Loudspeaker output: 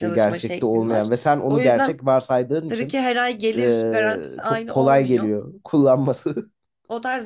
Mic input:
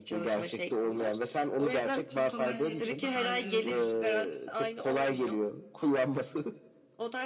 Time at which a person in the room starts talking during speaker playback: 2.1 s

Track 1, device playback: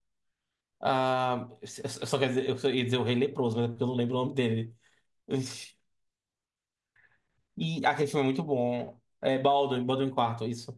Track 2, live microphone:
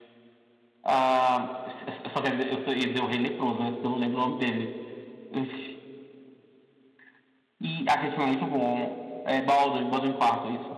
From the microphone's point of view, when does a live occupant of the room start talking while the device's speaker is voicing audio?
none

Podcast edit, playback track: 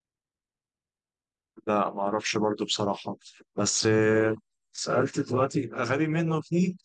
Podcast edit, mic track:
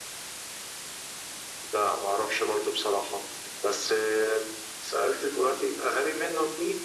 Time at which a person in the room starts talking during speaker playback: none

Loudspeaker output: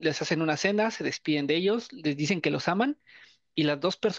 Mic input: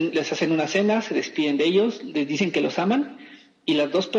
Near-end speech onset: none

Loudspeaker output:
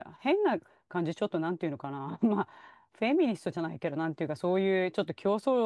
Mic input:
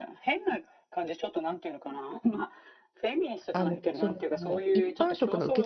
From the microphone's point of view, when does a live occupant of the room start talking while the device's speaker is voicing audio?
3.5 s

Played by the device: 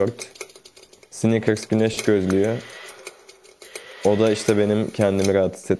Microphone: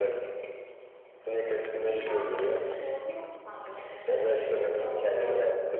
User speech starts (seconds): 1.7 s

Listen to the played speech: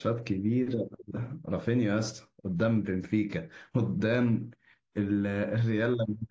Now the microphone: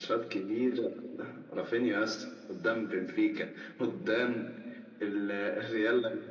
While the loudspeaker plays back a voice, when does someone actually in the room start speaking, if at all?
none

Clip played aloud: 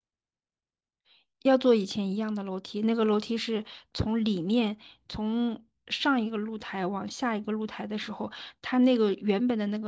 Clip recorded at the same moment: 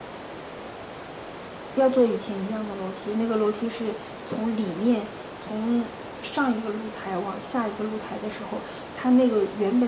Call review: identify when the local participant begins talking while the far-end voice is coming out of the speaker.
none

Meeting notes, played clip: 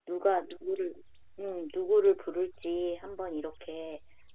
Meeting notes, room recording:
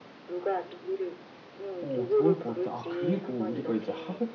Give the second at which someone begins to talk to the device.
1.8 s

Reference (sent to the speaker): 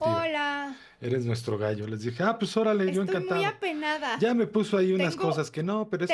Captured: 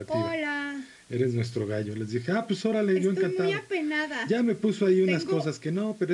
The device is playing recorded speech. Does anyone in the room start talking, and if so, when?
none

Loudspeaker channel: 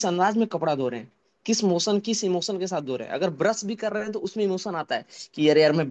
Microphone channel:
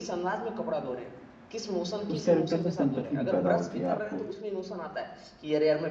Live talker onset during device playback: 2.1 s

